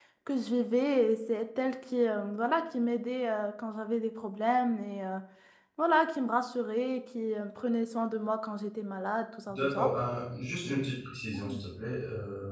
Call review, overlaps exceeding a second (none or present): none